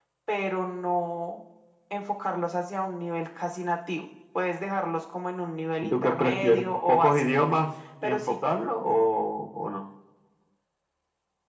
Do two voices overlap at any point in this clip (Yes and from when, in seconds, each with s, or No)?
Yes, from 5.8 s